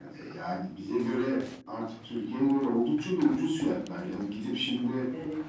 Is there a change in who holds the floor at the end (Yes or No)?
No